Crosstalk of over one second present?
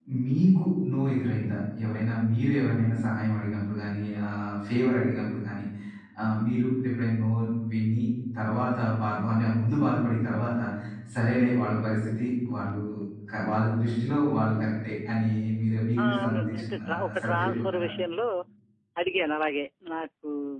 Yes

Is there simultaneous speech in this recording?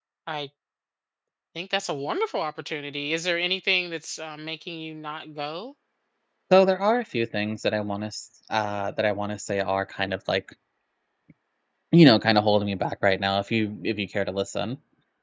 No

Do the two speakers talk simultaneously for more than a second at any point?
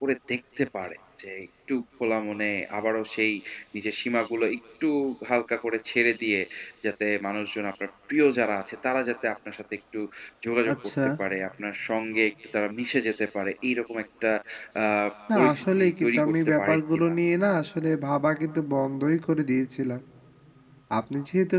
Yes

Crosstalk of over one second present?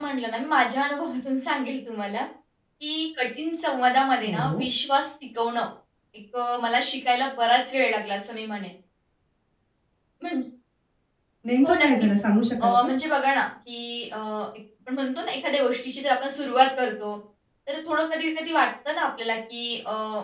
No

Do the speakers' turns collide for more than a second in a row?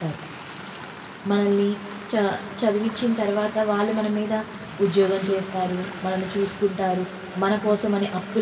No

